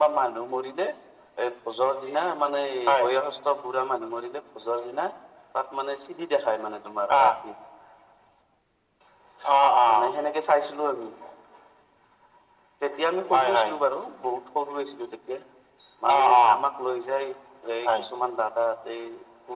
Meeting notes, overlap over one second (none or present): none